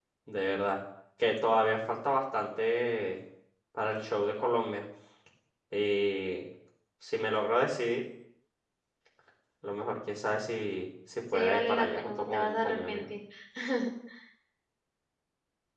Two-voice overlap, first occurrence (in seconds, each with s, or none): 11.3 s